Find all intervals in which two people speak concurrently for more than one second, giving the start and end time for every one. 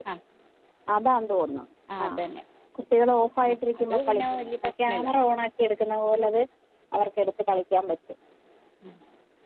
3.8-5.1

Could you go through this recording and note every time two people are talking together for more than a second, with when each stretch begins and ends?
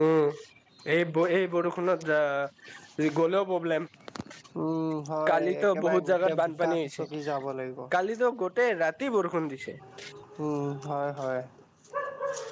5.3-7.1

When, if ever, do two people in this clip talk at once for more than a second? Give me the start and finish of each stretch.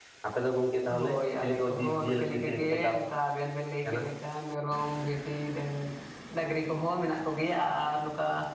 1.0-2.9

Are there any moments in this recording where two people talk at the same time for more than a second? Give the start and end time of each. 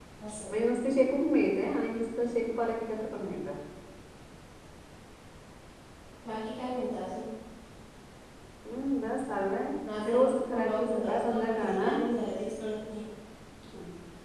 10.1-11.7

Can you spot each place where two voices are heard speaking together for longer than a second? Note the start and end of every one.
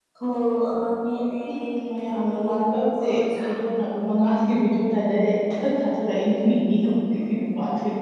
2.1-3.5

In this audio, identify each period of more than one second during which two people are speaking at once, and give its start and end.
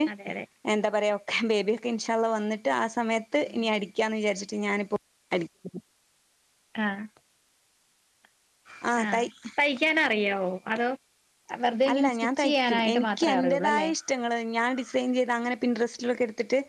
11.9-13.9

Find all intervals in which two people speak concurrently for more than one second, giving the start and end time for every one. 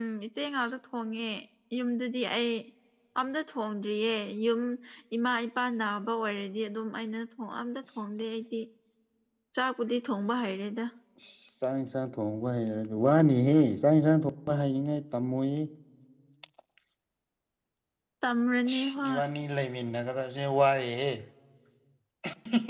none

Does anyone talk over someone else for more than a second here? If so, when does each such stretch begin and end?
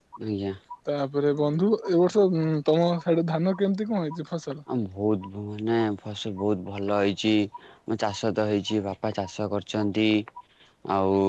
none

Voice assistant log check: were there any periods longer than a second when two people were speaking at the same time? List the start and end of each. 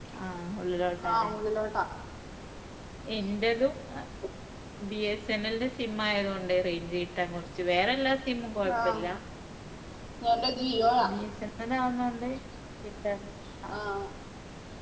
none

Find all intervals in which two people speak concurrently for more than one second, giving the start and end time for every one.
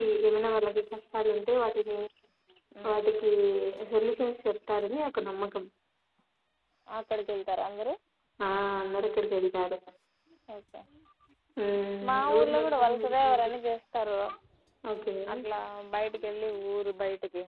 12.1-13.5

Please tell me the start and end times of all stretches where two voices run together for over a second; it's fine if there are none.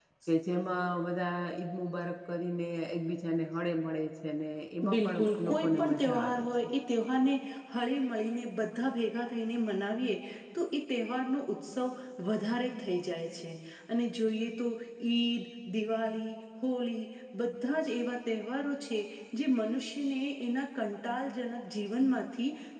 4.9-6.7

